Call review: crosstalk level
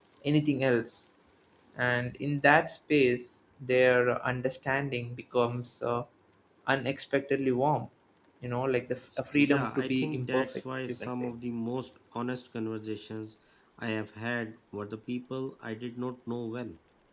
present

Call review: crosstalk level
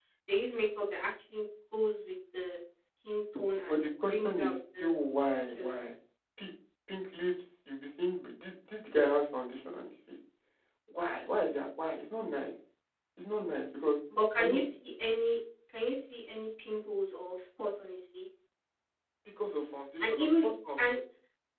present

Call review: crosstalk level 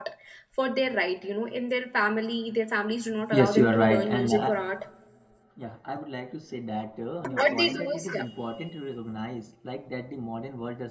present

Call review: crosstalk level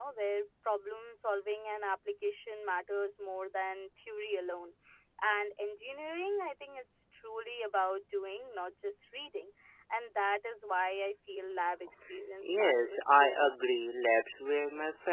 present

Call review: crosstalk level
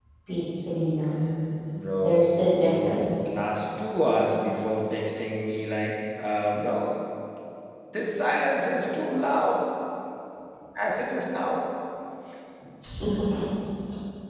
present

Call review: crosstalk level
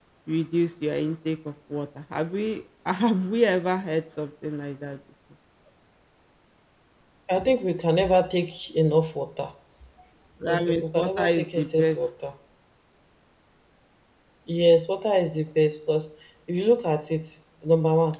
present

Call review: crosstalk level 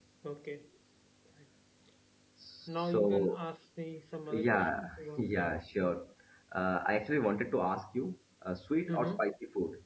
present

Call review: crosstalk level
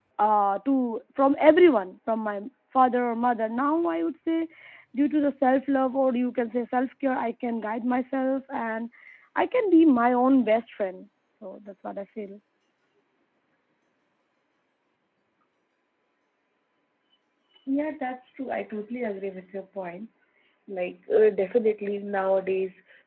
none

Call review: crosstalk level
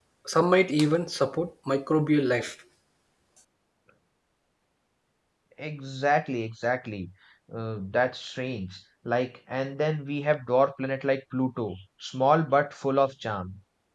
none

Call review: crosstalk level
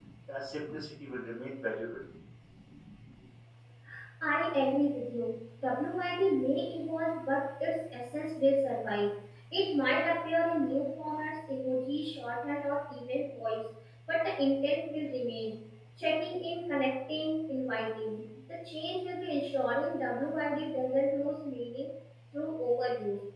none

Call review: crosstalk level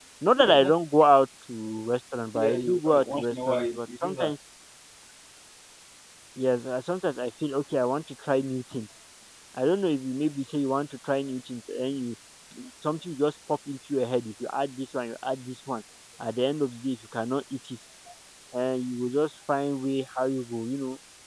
present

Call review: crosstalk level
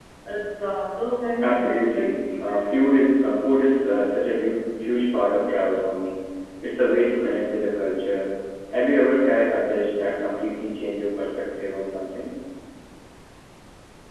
present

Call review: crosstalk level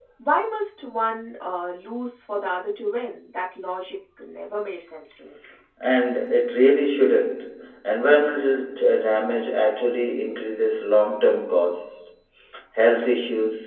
none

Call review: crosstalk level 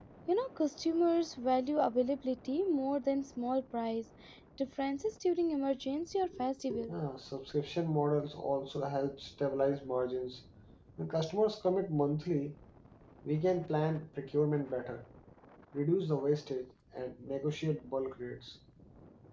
none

